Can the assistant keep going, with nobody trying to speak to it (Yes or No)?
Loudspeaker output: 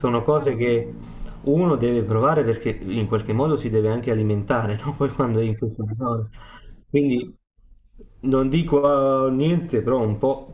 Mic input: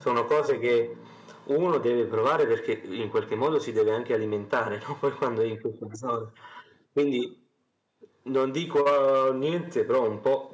Yes